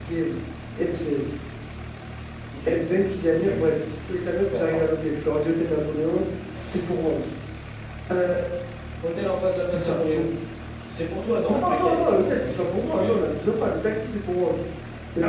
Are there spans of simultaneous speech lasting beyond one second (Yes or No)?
Yes